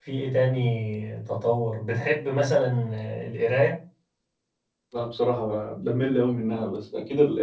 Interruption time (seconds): none

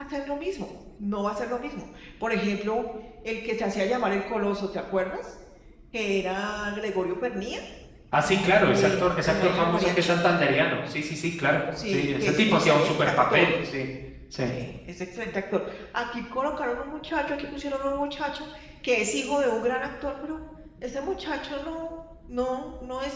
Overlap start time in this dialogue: 8.7 s

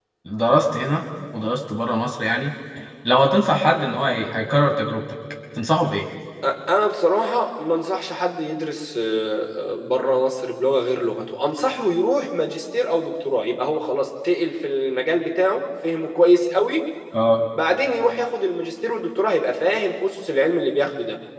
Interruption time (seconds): none

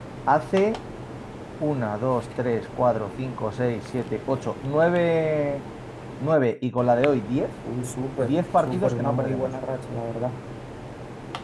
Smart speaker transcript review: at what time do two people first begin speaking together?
8.2 s

